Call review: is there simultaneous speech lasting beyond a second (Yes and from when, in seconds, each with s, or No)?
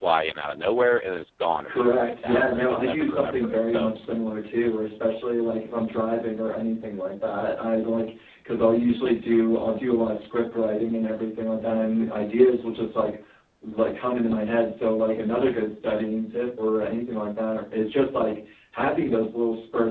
Yes, from 1.7 s